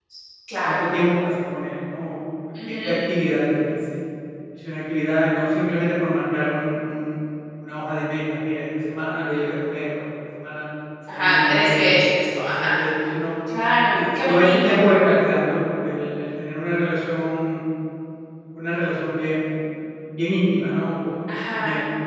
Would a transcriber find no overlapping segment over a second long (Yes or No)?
No